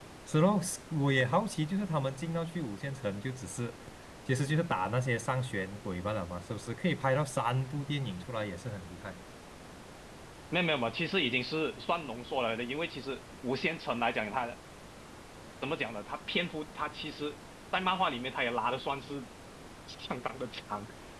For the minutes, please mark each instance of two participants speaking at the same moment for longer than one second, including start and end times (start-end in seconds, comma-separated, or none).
none